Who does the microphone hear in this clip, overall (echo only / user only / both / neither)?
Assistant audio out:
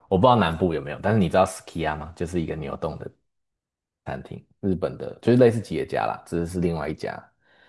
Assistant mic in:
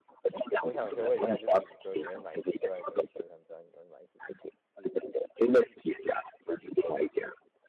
both